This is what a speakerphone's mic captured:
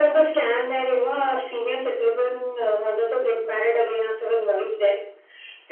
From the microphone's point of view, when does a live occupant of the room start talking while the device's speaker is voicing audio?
none

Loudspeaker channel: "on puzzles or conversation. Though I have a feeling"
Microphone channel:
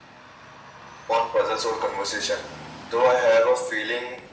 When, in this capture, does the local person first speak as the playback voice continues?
none

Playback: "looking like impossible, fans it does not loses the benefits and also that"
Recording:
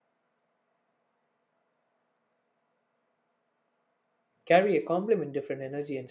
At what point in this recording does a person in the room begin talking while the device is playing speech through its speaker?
4.4 s

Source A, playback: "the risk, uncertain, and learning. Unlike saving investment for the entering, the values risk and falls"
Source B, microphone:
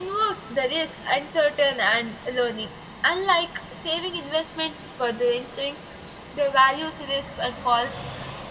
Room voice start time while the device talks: none

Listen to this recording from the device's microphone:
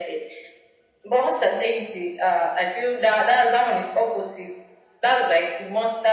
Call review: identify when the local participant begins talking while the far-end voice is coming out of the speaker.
none

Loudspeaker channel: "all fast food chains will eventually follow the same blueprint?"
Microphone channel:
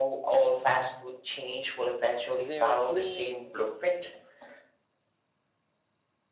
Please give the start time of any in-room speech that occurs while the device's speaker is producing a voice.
2.4 s

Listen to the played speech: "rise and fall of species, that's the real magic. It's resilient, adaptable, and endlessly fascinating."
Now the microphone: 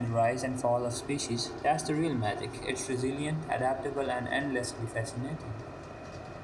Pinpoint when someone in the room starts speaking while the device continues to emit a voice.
none

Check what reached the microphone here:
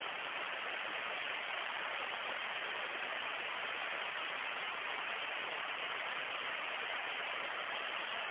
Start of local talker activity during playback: none

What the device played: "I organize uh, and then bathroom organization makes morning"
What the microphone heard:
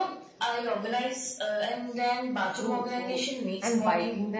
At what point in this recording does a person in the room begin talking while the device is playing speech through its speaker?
2.5 s

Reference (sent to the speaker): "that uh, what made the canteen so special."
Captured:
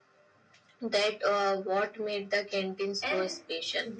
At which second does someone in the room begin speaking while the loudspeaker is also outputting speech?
3.0 s

